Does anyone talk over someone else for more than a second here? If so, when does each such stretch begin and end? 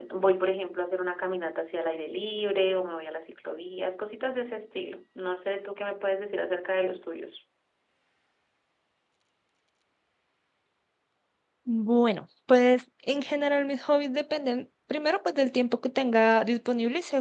none

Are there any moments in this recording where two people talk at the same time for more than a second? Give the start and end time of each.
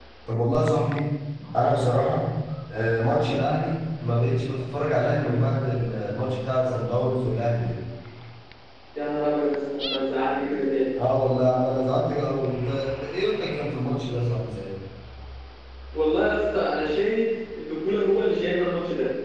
none

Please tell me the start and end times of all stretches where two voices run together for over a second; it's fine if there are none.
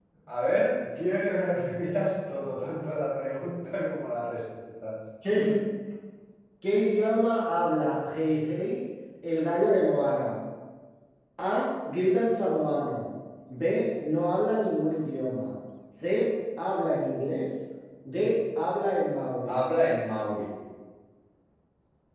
none

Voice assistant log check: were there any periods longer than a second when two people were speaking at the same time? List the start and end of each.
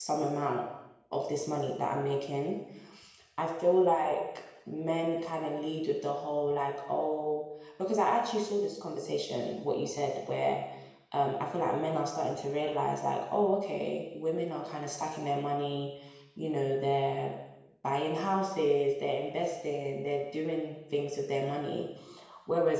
none

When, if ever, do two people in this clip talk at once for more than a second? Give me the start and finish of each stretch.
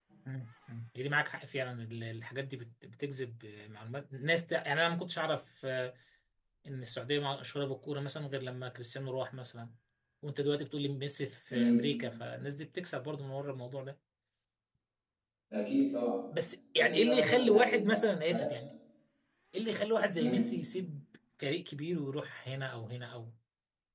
16.8-18.6

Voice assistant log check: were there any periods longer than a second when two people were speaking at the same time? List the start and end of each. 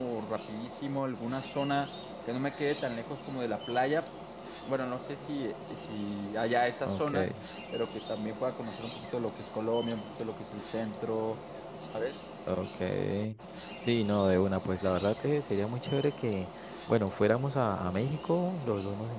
none

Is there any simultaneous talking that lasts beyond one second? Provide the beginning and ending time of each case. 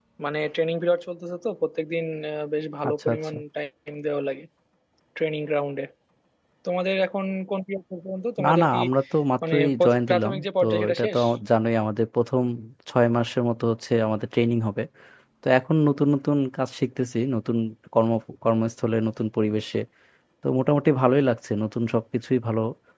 9.5-11.2

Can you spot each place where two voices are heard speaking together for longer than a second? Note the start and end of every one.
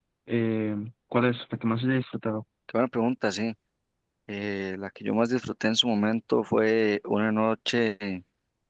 none

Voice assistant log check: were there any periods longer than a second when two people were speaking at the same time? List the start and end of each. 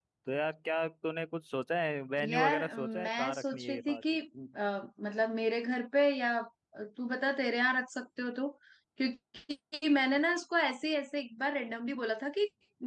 2.2-4.0

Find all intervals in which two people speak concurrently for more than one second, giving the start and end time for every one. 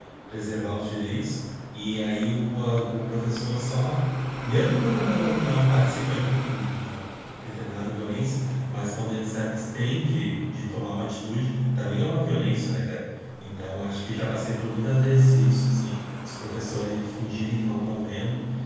none

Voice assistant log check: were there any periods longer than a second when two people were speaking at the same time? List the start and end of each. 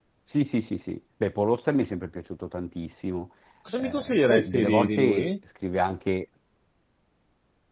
3.8-5.3

